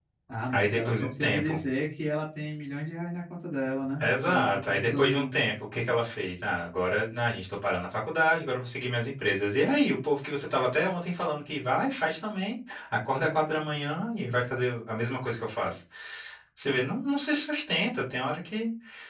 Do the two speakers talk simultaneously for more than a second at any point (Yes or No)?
Yes